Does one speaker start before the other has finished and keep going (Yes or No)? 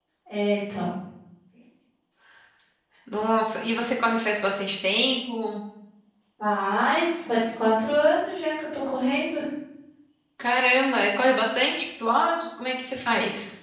No